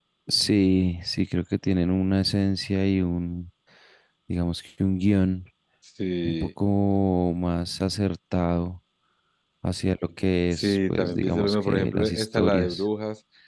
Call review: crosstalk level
present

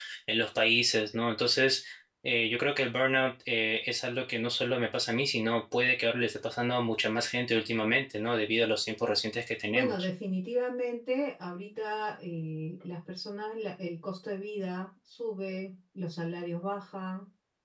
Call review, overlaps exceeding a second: none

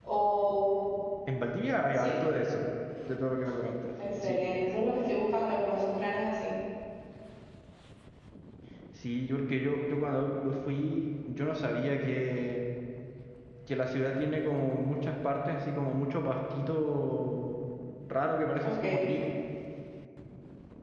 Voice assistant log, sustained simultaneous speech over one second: none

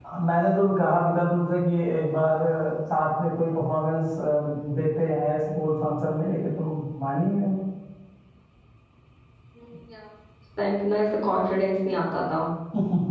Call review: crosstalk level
none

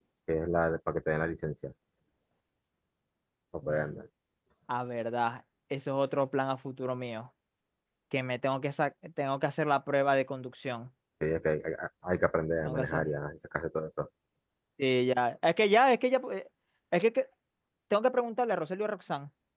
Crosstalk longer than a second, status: none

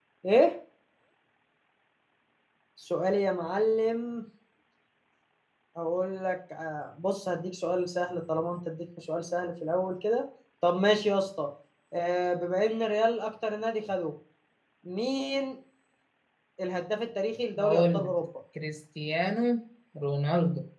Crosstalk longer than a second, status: none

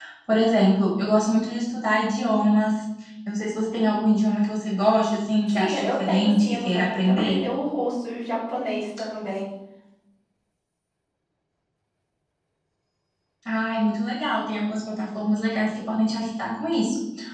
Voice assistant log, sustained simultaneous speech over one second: present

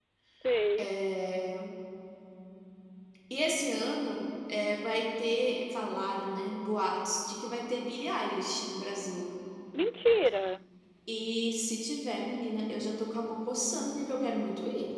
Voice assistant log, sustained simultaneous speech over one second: none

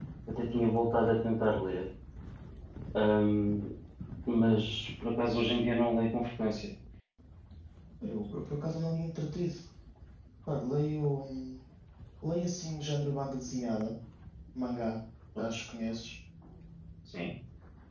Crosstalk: none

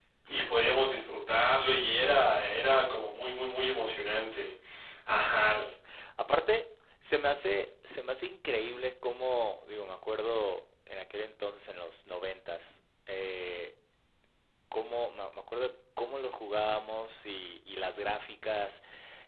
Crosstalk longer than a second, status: none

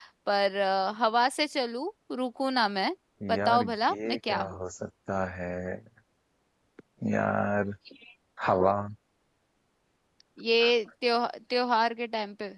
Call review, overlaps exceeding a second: present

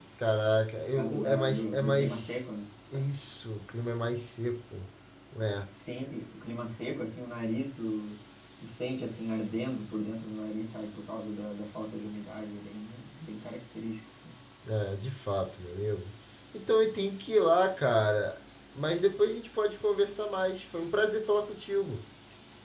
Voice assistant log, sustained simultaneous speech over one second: present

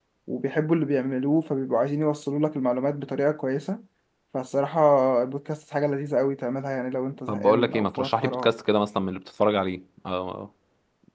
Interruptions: present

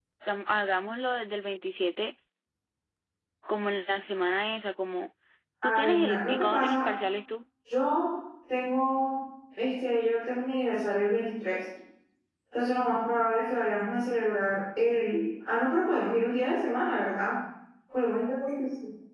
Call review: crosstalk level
present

